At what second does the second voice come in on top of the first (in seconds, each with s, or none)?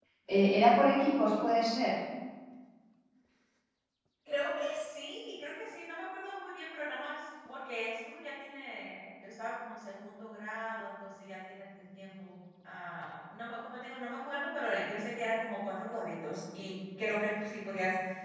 none